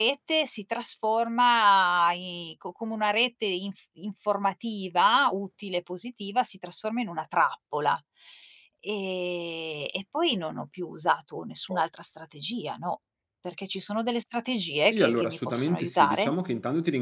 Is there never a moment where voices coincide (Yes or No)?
No